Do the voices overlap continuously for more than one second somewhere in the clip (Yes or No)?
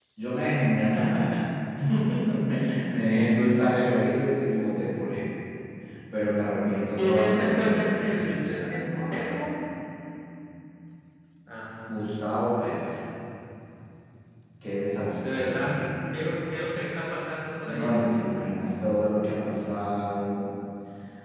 Yes